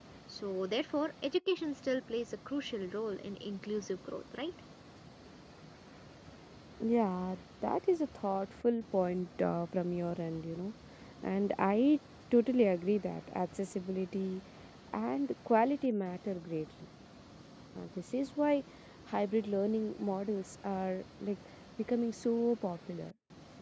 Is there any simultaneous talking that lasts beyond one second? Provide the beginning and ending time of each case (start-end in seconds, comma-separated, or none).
none